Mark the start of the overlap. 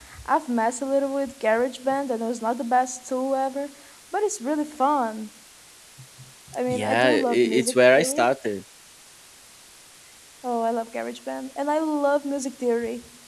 6.7 s

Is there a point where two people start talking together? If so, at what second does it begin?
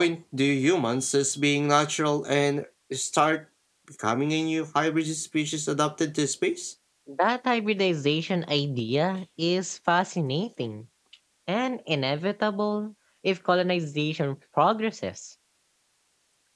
none

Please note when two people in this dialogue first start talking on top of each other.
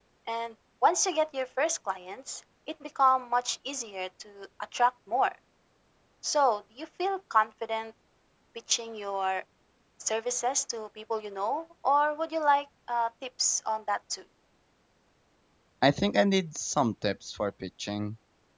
none

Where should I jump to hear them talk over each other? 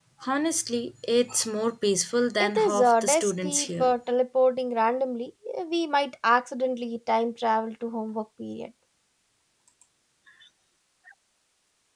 2.4 s

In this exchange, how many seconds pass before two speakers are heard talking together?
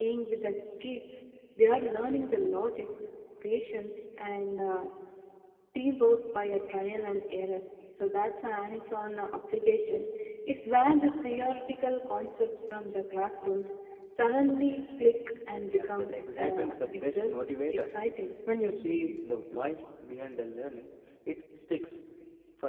15.7 s

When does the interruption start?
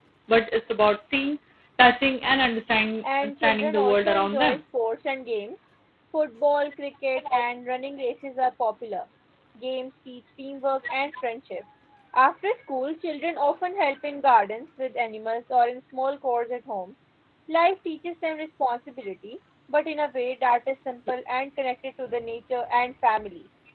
3.0 s

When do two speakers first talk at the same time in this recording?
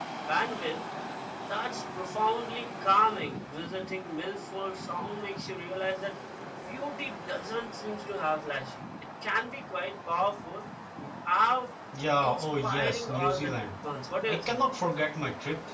12.2 s

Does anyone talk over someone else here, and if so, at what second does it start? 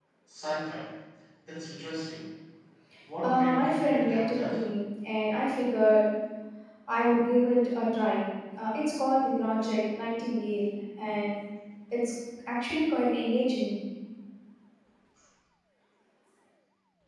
3.2 s

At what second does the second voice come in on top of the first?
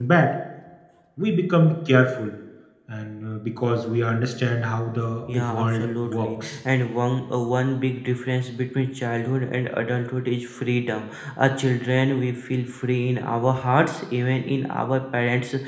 5.2 s

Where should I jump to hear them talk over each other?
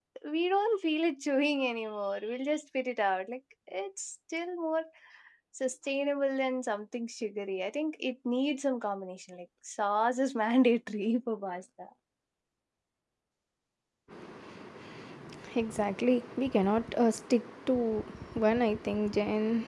none

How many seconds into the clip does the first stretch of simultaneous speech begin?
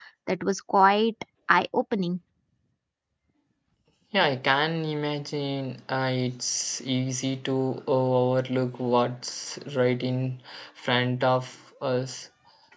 none

